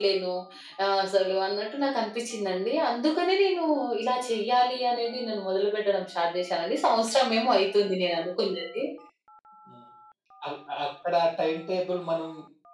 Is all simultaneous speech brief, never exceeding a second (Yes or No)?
Yes